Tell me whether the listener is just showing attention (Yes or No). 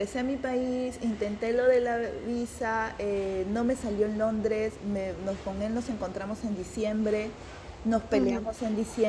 Yes